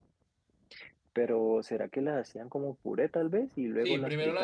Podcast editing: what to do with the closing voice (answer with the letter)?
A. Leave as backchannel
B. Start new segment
B